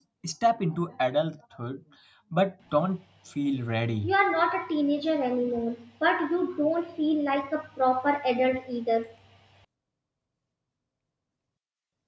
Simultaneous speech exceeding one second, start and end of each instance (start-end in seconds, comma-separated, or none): none